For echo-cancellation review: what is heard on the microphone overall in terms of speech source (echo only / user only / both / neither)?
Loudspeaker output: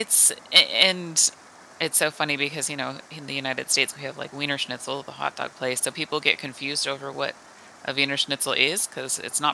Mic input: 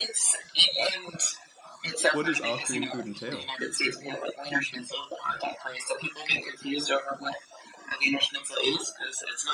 both